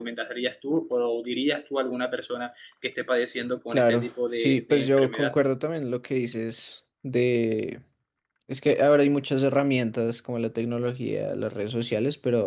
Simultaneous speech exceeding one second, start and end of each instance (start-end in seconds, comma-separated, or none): 3.7-5.3